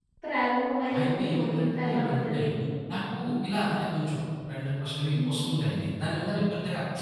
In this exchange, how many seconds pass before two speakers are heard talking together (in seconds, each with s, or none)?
1.0 s